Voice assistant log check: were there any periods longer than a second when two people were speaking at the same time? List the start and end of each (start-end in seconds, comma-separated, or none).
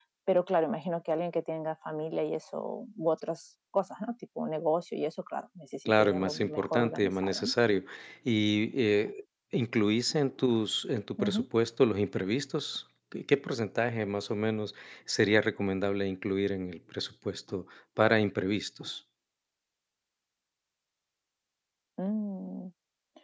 6.0-7.5